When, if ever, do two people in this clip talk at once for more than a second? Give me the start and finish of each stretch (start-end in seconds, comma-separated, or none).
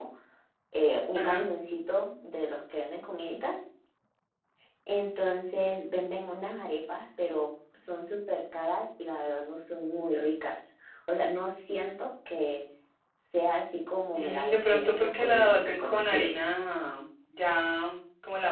14.1-16.3